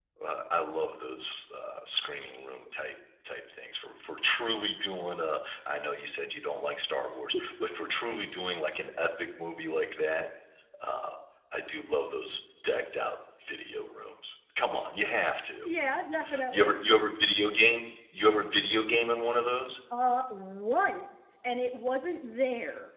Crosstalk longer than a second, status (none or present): none